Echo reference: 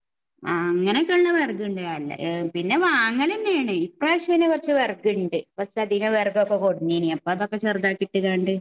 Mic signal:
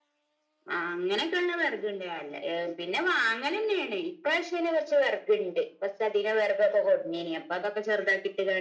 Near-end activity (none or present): none